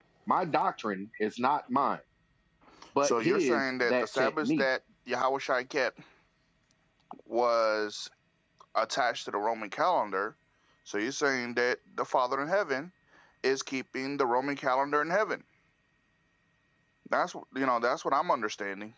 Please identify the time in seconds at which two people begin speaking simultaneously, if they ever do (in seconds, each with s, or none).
3.0 s